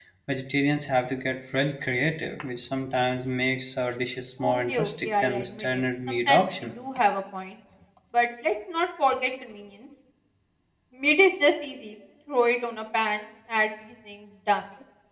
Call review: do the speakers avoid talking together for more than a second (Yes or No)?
No